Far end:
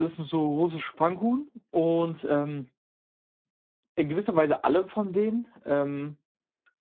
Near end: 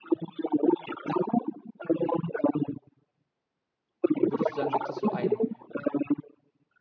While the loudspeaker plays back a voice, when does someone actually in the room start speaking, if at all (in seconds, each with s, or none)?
4.2 s